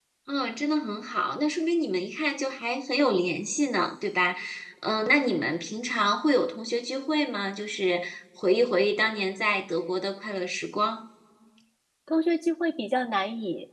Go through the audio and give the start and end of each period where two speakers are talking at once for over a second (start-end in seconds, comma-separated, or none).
none